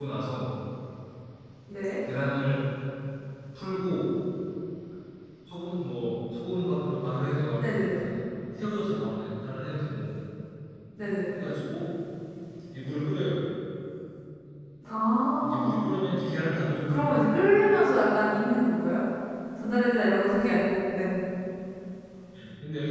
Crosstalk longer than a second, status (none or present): none